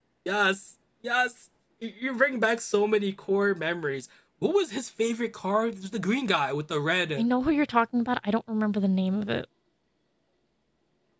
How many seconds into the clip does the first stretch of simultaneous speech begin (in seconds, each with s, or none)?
none